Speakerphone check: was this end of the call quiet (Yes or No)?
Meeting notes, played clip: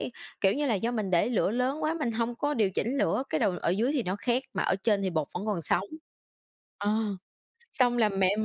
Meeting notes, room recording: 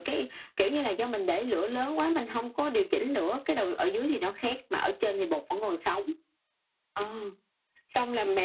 Yes